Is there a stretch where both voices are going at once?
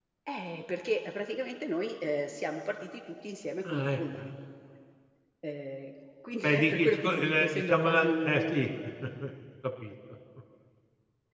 Yes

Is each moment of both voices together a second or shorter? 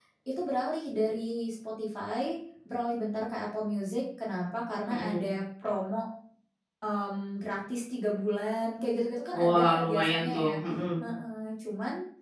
No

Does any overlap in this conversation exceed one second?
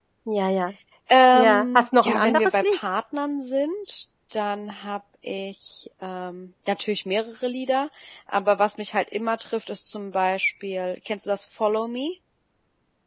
Yes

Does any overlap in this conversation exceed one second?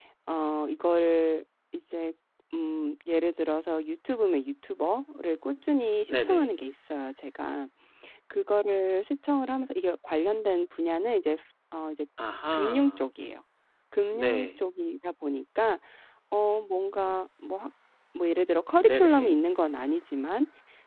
No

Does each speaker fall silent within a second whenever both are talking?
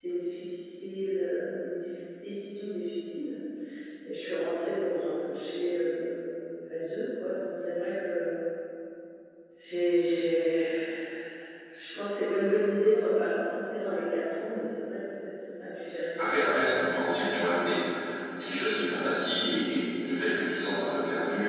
No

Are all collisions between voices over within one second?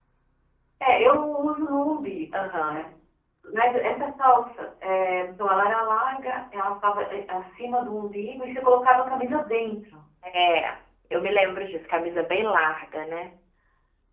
Yes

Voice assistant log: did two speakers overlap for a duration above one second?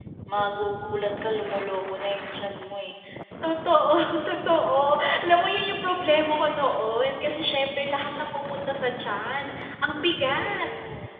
No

